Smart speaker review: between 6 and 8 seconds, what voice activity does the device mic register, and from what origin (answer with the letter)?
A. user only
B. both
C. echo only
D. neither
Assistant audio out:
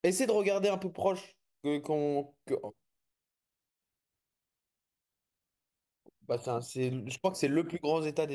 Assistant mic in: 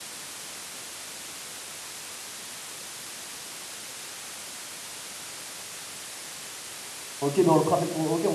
A